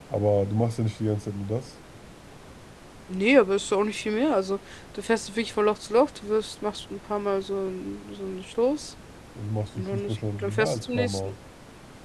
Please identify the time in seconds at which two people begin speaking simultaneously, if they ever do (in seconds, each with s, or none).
9.8 s